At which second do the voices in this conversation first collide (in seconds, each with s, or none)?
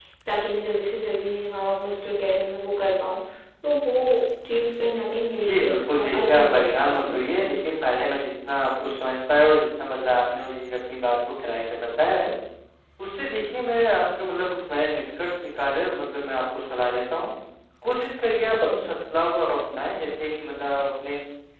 5.4 s